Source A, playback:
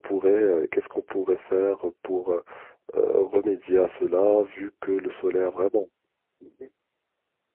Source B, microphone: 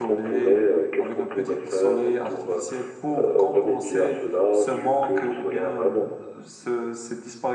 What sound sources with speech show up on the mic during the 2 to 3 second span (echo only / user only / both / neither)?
both